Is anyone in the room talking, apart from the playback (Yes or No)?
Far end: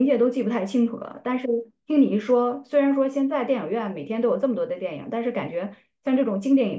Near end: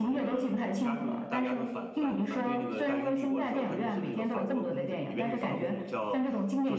Yes